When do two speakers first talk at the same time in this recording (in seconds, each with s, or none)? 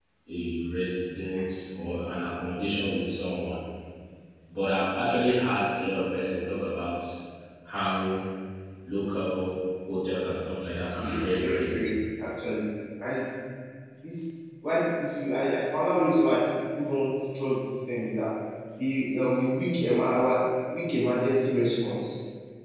10.6 s